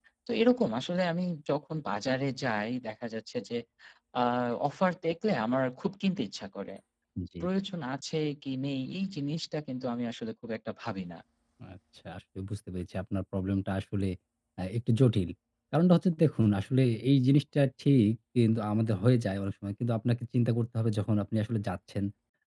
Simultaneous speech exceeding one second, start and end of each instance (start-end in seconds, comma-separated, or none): none